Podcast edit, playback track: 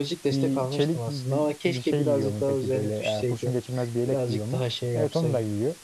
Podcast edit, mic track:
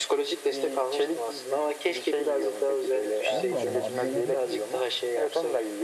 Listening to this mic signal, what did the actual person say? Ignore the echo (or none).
Vallahi Allah amcaların